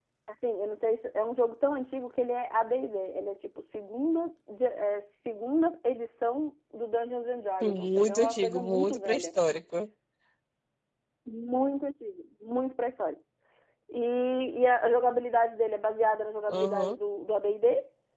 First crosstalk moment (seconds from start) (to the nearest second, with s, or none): 8 s